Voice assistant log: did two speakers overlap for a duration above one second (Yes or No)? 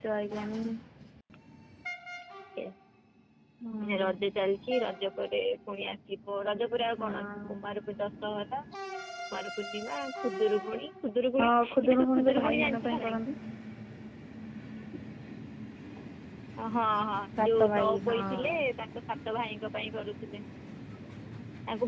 Yes